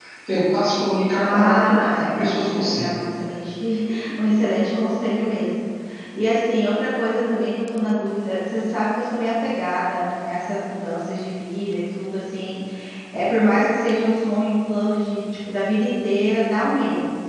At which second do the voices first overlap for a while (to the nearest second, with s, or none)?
1 s